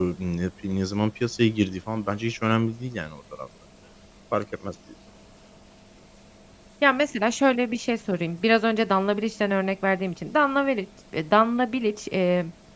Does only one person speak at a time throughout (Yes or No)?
Yes